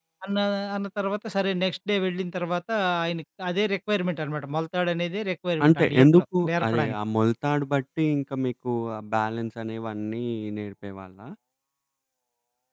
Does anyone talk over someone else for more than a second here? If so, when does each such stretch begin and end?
5.6-7.0

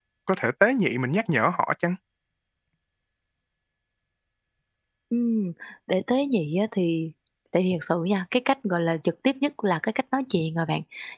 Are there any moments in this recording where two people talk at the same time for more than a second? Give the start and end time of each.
none

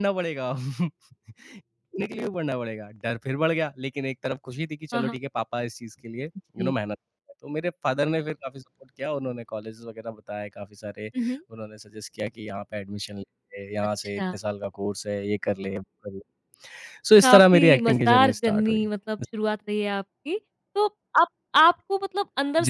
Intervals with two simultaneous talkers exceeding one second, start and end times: 17.2-18.9

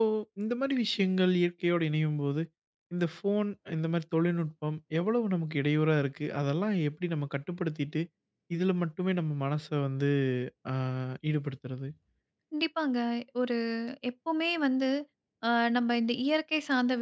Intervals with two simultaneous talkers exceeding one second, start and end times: none

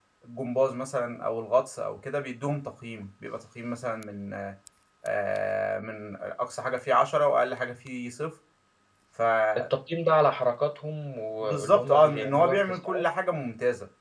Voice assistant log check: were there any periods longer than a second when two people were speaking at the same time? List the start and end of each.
11.4-13.0

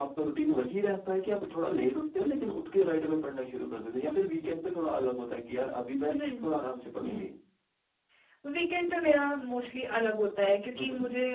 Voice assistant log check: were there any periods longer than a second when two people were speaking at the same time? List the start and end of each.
none

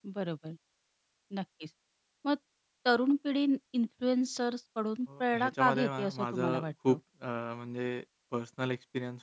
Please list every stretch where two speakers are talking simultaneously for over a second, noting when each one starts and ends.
5.2-7.0

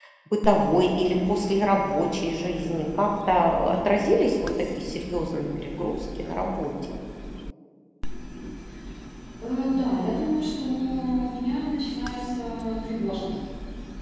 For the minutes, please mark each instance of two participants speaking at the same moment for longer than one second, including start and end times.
none

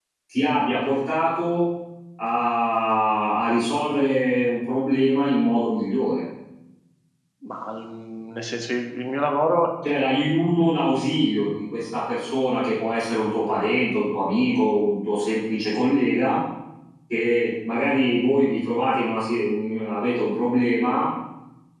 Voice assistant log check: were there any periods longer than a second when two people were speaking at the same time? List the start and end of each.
none

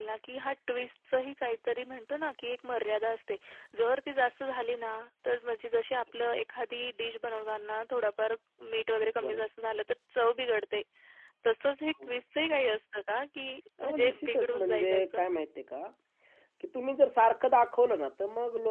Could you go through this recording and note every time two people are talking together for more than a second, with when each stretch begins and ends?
13.8-15.2

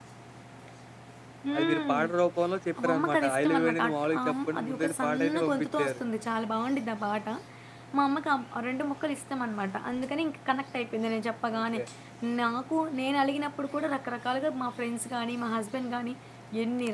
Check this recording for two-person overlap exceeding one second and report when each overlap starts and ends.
2.9-6.0

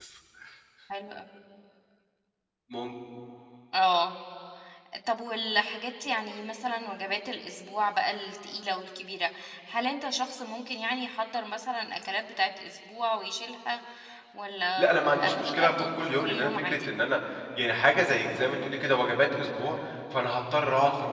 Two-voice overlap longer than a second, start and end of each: 14.8-16.9

